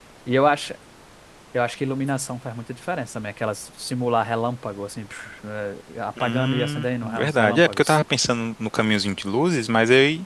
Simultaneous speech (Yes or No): Yes